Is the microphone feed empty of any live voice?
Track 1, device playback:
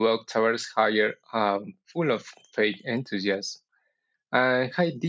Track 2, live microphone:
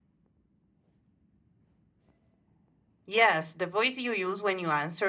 No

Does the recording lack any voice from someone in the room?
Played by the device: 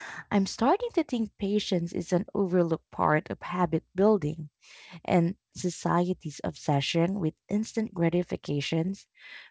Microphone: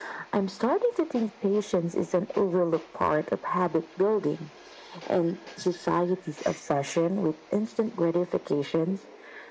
Yes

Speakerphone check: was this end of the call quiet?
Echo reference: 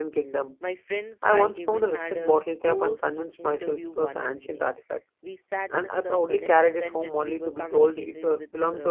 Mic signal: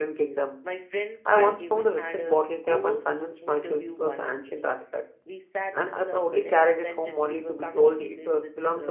Yes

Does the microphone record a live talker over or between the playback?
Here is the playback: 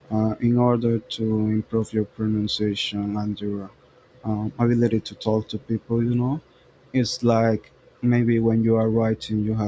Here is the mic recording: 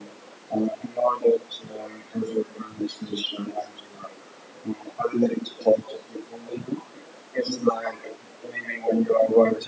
No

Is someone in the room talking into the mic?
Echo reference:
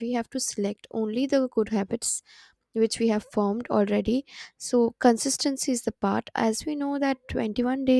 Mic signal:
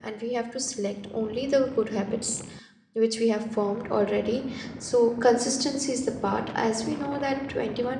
No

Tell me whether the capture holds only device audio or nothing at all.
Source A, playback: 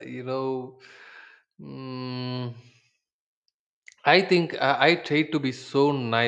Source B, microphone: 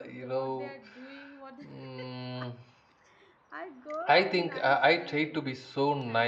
No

